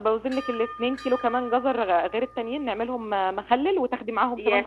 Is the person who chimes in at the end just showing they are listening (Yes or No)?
No